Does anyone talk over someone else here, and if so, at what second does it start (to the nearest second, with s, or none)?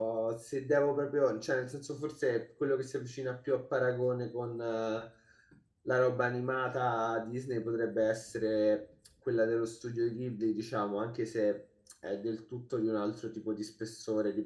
none